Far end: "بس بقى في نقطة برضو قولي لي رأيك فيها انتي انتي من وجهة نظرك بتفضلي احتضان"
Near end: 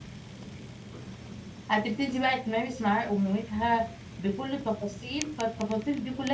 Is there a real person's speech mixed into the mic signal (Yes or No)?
Yes